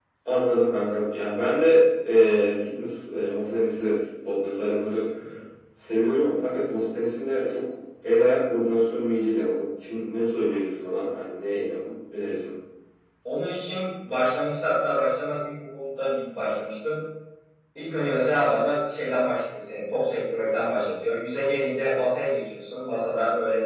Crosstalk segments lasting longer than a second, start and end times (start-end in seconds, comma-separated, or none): none